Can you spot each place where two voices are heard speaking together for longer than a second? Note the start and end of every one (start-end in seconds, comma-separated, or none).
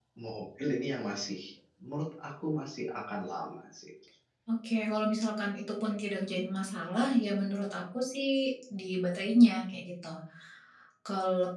none